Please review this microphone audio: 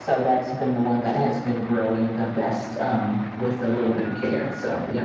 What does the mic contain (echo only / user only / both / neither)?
echo only